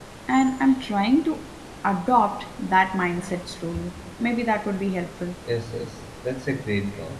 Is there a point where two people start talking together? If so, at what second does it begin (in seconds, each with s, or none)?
none